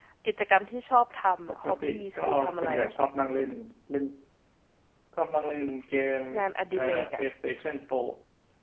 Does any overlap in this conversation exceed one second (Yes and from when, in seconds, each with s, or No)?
Yes, from 1.5 s